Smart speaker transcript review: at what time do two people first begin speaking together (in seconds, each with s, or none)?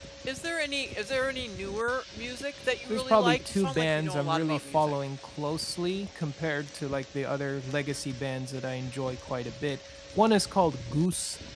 2.9 s